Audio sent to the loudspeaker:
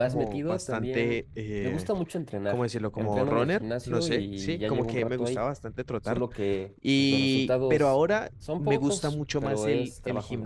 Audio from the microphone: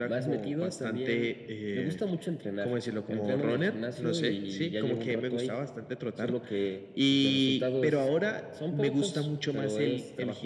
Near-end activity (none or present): none